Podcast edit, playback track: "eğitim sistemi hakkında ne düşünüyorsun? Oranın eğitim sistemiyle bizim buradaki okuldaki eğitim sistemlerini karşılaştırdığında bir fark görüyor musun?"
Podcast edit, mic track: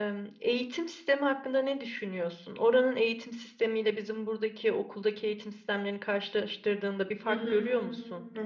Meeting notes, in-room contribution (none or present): present